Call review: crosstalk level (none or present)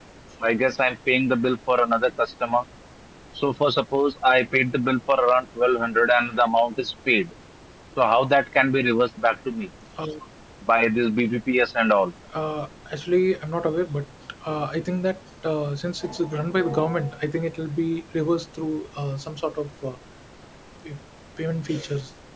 none